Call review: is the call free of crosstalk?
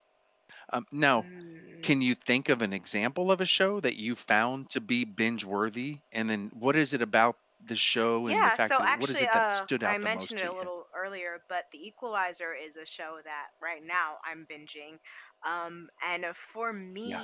No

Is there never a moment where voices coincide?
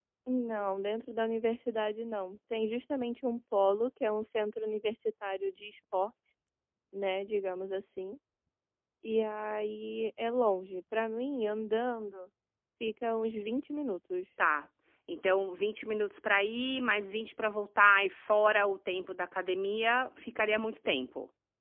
Yes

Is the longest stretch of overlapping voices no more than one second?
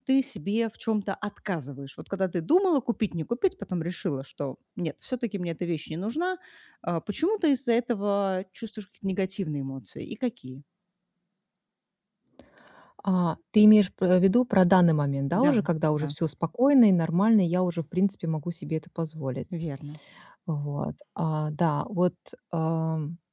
Yes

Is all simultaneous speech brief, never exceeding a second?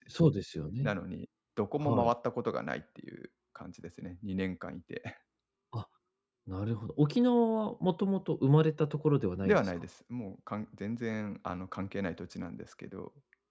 Yes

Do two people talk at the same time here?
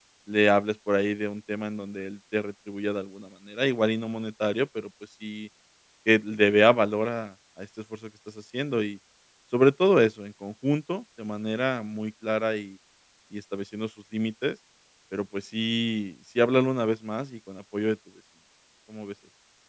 No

